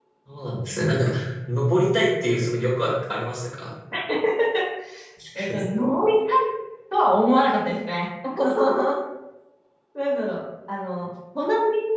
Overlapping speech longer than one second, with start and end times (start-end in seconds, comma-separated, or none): none